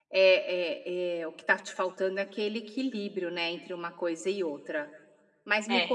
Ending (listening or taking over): listening